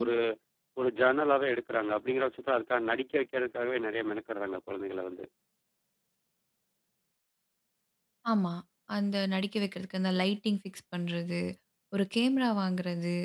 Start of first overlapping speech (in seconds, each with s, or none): none